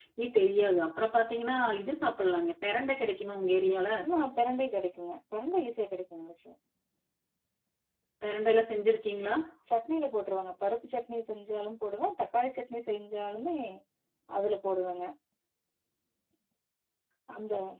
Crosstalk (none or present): none